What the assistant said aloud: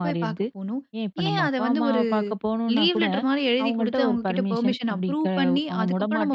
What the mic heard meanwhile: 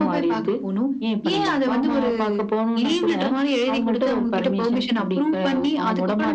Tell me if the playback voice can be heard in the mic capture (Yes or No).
Yes